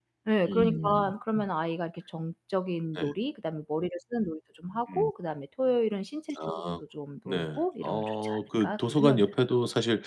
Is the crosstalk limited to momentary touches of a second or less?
No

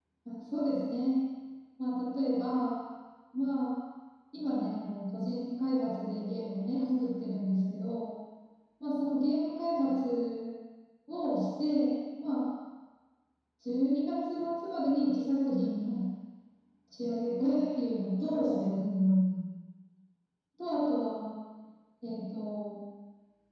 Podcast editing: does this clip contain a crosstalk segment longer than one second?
No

